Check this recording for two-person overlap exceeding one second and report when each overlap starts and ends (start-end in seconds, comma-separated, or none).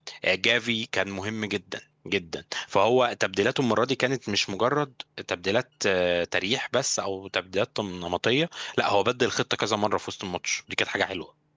none